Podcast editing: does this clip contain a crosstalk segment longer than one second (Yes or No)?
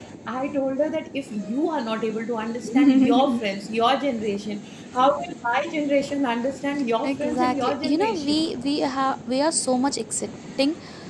Yes